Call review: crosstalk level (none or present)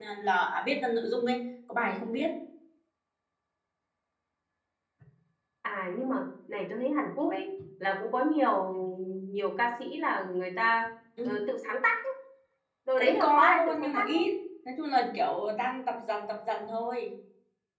present